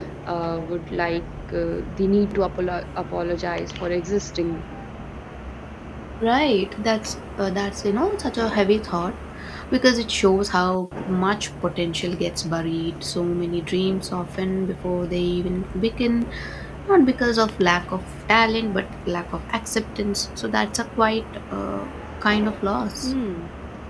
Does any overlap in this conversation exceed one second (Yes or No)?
No